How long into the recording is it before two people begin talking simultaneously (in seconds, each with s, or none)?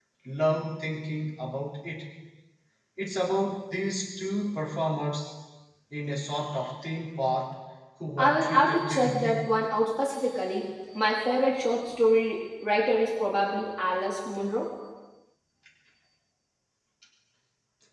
8.2 s